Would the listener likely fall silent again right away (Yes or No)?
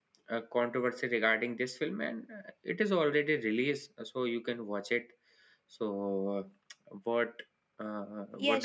No